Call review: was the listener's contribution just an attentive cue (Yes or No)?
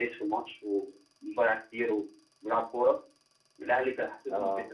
Yes